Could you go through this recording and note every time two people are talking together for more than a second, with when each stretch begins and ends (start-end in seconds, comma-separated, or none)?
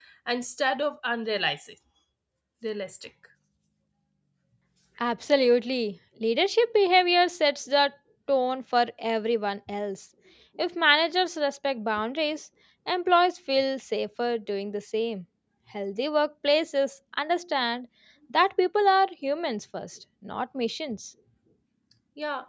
none